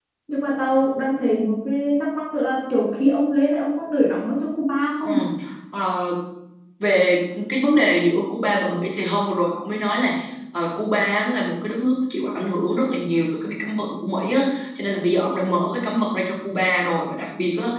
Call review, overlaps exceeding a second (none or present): none